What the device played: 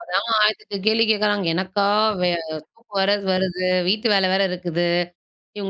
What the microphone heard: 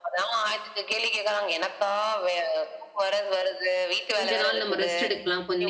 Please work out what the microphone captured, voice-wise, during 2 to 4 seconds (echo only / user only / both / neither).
echo only